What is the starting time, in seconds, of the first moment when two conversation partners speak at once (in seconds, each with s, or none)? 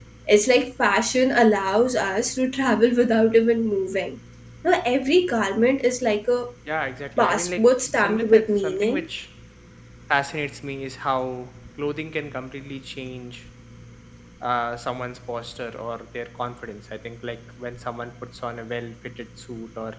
7.2 s